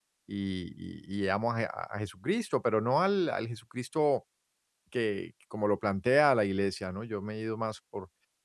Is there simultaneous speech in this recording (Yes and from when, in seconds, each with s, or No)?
No